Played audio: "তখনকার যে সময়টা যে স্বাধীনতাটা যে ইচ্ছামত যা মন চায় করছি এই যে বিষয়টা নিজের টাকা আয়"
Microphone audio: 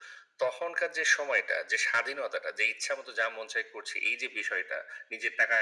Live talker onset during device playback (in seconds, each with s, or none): none